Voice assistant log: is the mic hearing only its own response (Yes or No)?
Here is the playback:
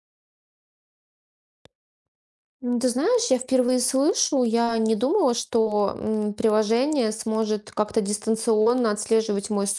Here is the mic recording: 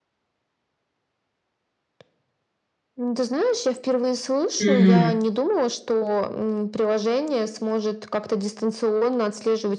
No